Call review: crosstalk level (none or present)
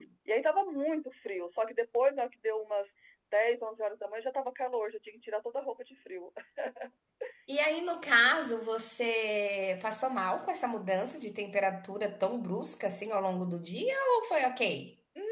none